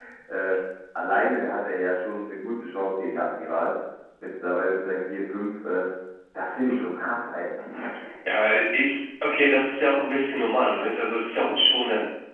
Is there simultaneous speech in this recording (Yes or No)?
No